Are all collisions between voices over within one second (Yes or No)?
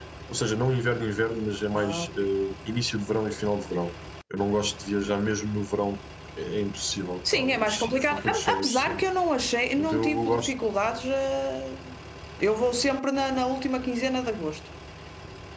No